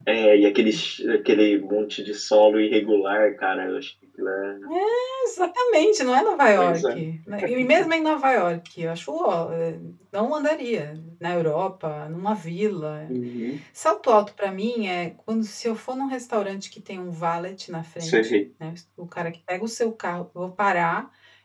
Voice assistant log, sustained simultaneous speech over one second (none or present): none